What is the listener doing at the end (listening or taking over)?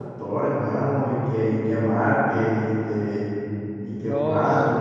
taking over